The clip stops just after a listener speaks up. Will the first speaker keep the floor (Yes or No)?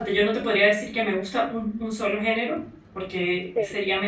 Yes